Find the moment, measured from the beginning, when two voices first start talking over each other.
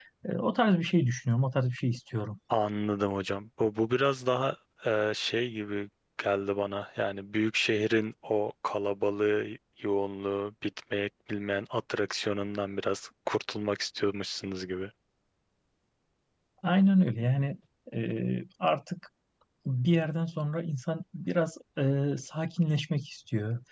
none

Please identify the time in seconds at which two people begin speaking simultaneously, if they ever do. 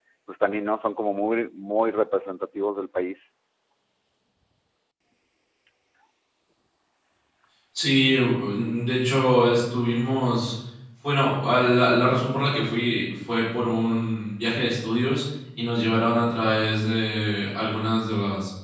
none

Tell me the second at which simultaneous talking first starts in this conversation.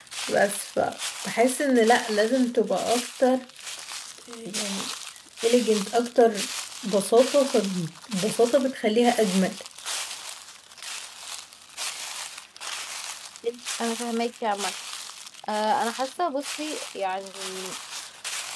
none

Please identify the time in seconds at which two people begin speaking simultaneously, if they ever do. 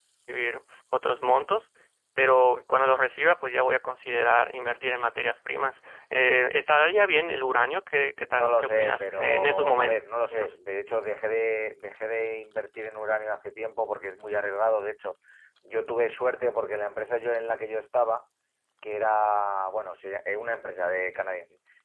8.3 s

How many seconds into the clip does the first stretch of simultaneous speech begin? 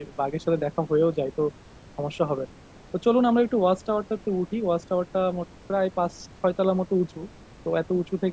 none

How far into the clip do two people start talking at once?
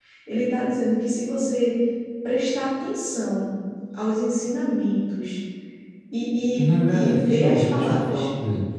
6.5 s

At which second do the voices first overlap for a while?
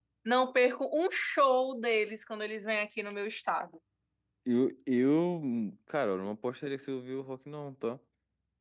none

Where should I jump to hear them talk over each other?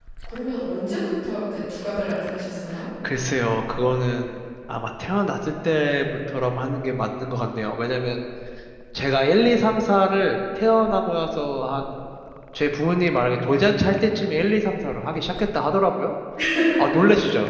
none

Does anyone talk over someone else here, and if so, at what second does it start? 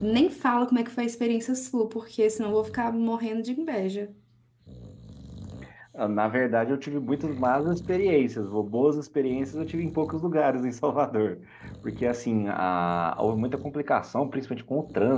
none

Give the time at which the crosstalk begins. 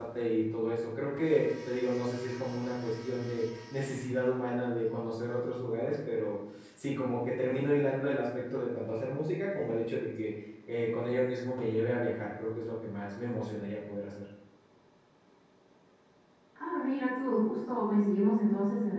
none

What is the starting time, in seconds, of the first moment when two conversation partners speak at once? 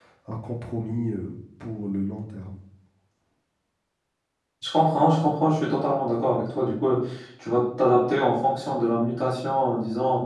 none

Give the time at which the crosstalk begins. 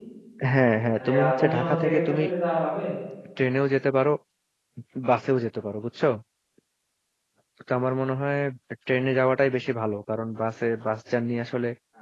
1.0 s

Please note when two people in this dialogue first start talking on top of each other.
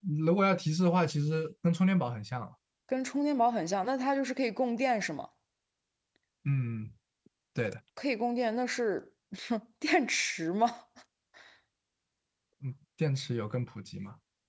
none

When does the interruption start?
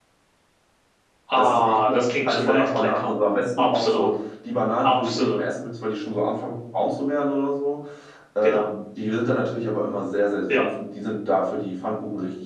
1.4 s

